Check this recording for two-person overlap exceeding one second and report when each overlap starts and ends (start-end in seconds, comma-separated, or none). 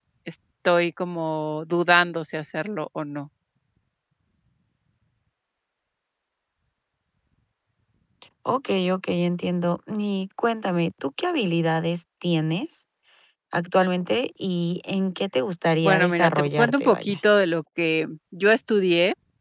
15.8-17.2